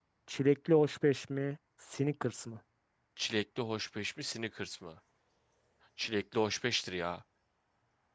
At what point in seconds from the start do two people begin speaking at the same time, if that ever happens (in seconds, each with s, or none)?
none